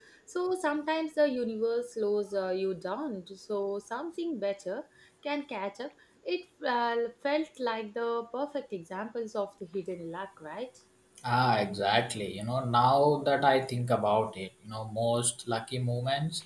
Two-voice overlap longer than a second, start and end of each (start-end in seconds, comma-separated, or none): none